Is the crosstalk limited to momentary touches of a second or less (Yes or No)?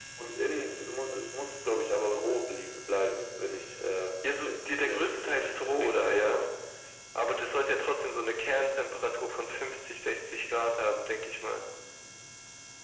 No